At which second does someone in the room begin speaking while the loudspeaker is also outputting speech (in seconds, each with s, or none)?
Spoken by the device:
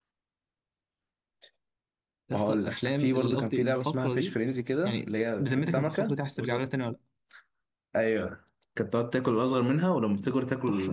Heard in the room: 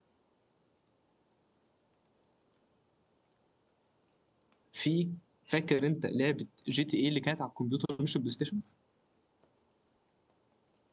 4.7 s